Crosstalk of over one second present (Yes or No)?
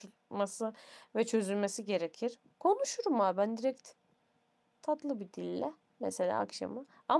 No